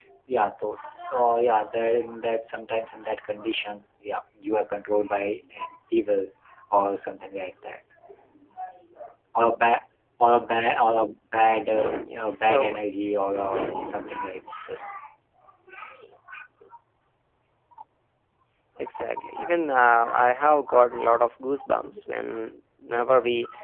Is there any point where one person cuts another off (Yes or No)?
Yes